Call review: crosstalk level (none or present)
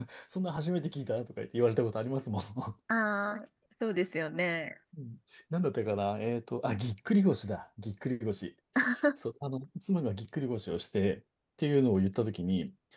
none